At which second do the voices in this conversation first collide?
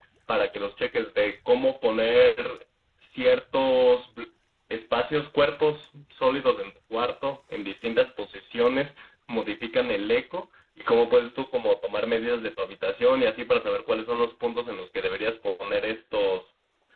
none

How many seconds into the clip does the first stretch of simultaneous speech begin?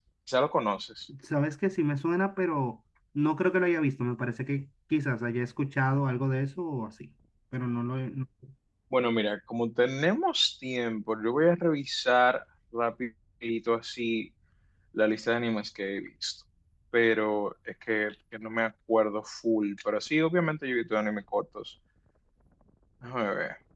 none

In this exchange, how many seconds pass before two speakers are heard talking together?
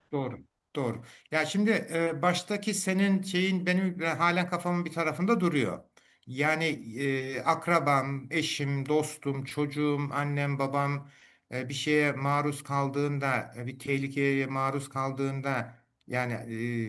none

